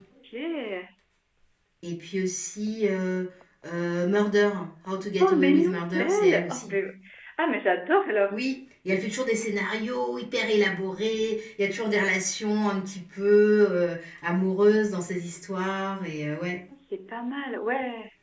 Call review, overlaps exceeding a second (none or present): present